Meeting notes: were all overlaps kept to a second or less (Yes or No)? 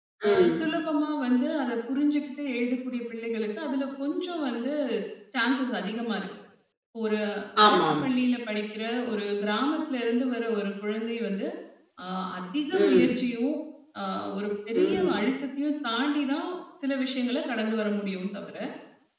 Yes